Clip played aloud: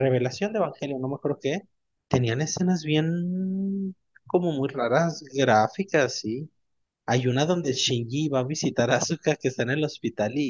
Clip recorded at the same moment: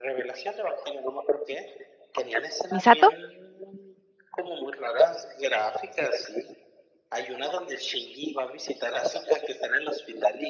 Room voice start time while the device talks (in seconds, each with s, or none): 2.7 s